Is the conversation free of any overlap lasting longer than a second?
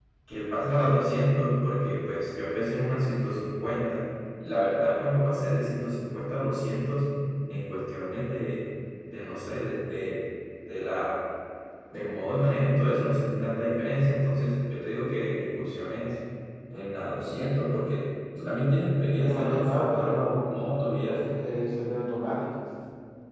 No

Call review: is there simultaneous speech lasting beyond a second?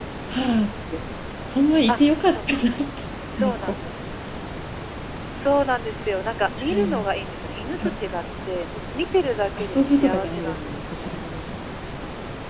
Yes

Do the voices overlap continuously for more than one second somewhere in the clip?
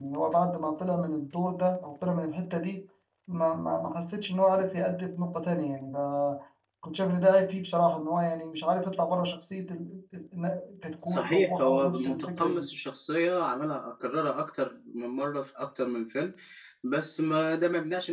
Yes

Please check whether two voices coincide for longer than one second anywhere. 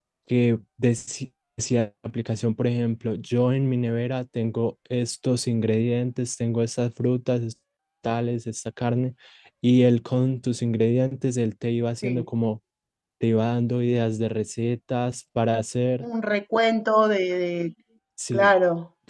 No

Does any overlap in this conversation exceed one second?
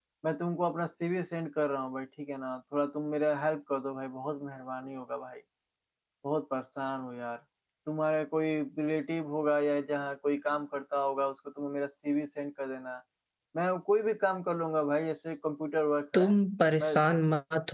No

